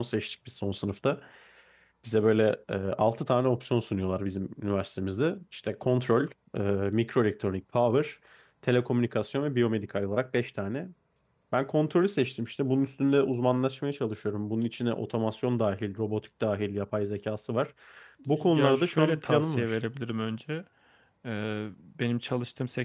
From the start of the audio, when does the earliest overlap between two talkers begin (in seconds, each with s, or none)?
18.3 s